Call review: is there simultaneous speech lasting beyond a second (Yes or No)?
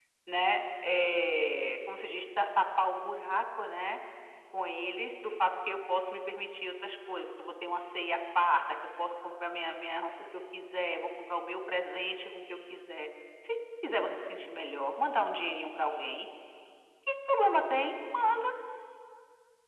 No